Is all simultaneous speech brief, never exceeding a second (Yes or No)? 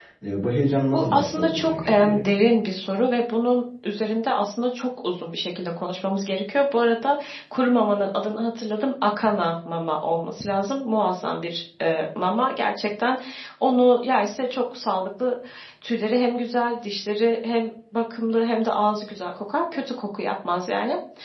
No